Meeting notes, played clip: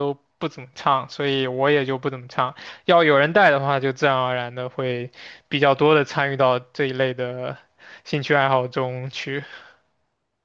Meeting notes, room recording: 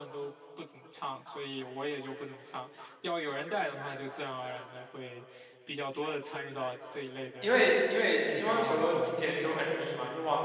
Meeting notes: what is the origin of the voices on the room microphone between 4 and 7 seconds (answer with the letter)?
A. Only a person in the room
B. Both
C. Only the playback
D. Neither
C